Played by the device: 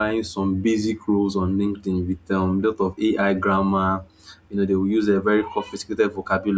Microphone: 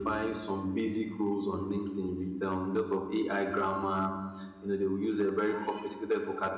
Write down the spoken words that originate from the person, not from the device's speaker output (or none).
none